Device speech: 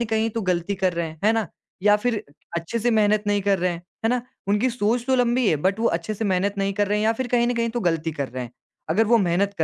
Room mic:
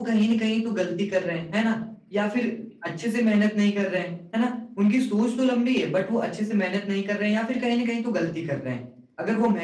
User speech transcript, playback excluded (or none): none